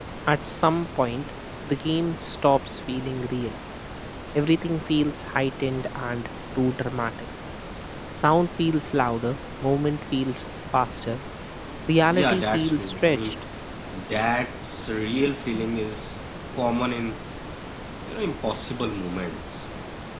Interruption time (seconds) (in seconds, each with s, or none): 12.1 s